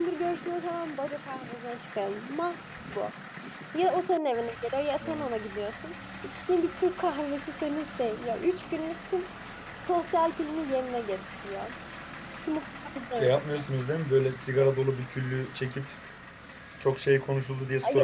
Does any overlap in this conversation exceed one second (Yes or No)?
No